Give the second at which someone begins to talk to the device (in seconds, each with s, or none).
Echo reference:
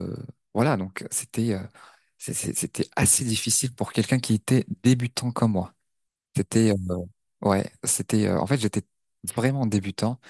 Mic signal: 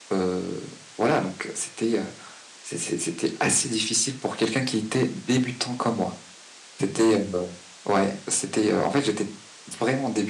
none